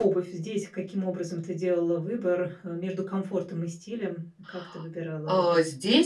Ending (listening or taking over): taking over